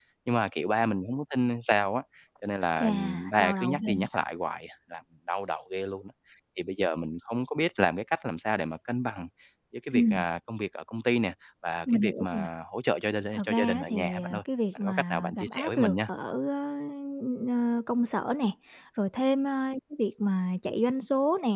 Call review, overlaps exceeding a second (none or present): present